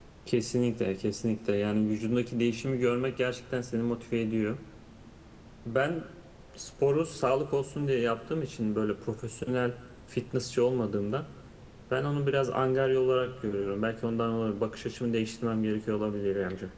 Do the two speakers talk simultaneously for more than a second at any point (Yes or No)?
No